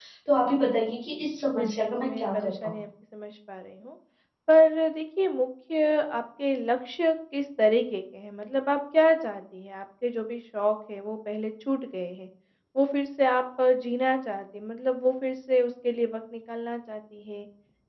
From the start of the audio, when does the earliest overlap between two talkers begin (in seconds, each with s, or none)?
1.6 s